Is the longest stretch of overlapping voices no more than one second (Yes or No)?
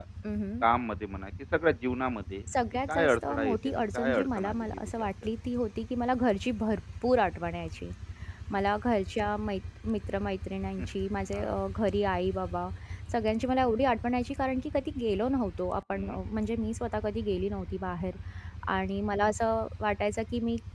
No